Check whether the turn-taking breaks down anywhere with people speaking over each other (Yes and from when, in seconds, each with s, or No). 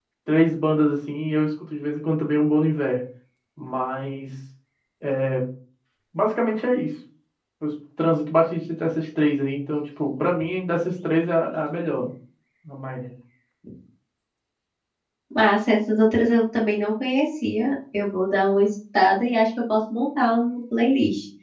No